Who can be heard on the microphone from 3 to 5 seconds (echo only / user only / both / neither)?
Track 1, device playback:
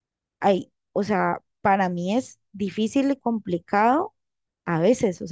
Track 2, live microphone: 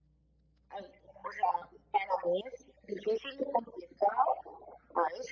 echo only